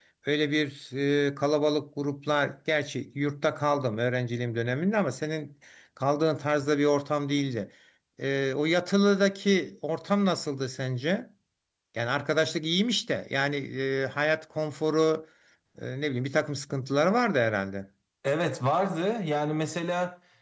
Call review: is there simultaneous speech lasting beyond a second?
No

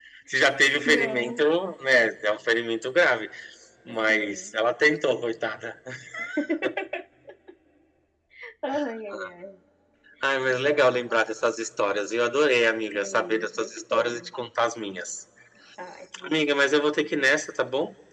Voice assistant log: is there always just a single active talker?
No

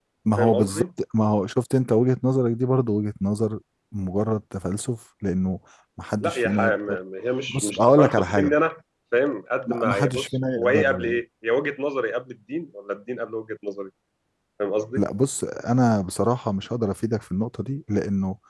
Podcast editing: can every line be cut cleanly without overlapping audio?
No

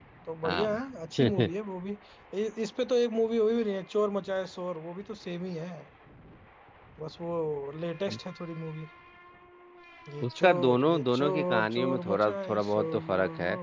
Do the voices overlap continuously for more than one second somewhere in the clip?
Yes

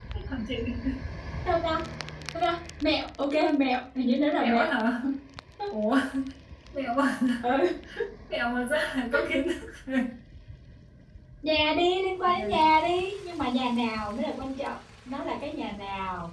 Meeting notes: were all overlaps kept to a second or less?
Yes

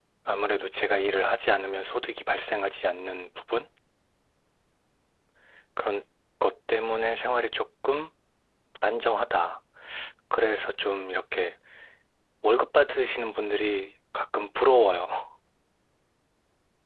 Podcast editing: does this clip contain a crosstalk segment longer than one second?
No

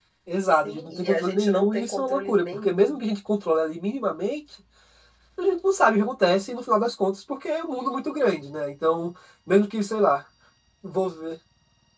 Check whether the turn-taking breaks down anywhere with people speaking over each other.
Yes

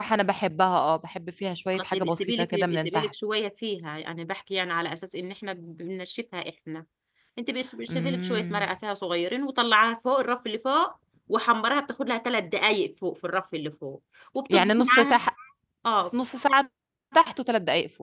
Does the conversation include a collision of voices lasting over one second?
Yes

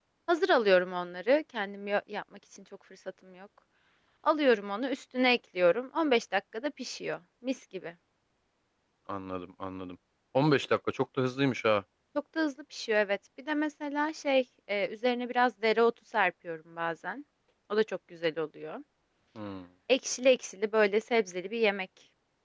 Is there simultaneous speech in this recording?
No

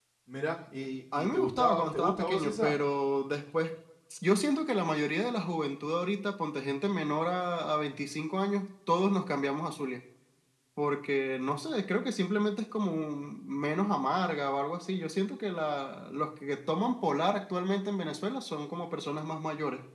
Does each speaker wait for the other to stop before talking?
No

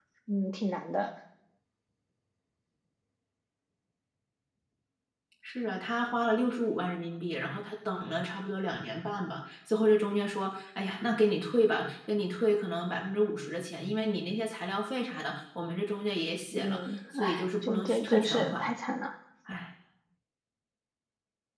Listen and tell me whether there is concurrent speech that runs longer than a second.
Yes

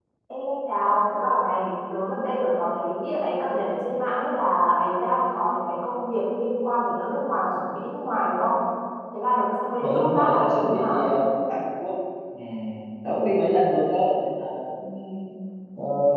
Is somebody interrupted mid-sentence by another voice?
Yes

